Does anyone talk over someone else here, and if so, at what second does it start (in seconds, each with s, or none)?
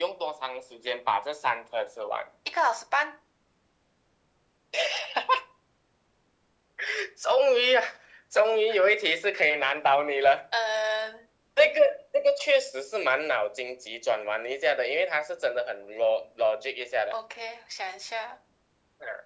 none